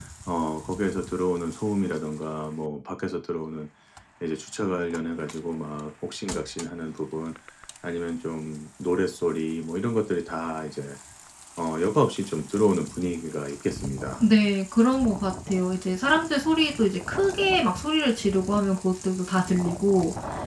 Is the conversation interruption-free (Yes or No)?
Yes